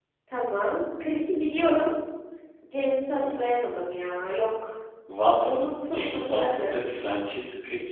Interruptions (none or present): present